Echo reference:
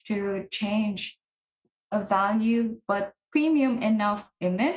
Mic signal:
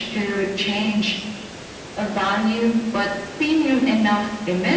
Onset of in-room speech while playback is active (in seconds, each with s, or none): none